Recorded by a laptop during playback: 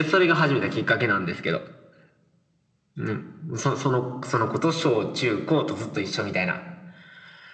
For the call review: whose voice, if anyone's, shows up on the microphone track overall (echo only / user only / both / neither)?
echo only